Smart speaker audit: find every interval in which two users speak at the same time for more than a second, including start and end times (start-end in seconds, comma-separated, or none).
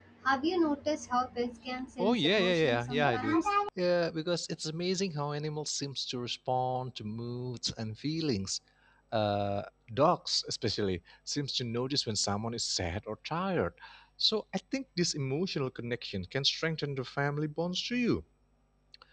2.0-3.4